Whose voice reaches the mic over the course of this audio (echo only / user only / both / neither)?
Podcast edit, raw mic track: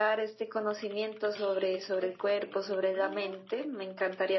both